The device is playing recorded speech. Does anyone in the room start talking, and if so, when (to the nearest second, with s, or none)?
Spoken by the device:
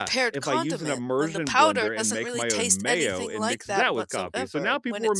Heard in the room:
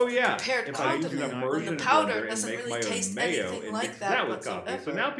1 s